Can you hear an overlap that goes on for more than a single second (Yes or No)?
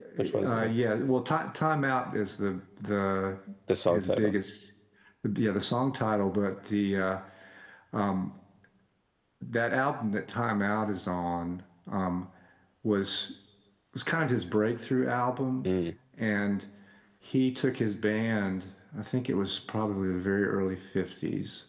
No